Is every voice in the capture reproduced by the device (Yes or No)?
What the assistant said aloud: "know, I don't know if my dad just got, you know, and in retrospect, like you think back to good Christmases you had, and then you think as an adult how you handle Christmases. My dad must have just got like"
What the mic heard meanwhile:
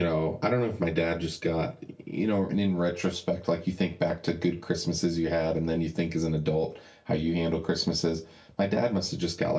Yes